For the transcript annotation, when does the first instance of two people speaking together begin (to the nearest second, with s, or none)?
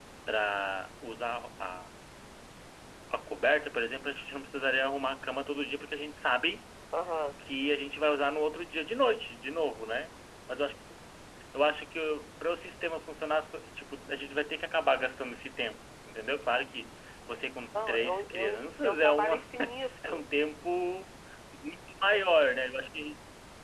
18 s